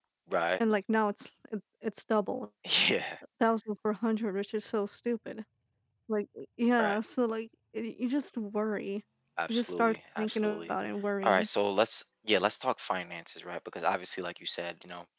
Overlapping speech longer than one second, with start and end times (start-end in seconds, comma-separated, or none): 9.5-10.7